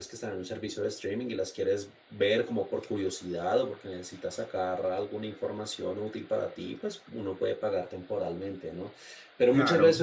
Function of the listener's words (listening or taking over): listening